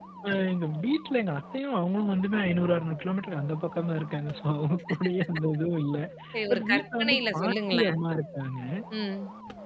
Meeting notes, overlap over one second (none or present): present